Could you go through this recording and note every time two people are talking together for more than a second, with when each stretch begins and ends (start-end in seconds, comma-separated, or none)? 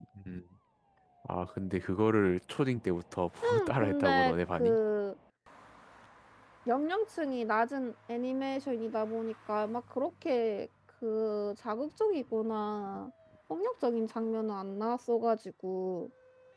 3.4-4.8